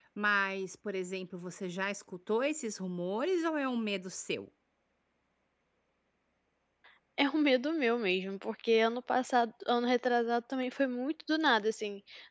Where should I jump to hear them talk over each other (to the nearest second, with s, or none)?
none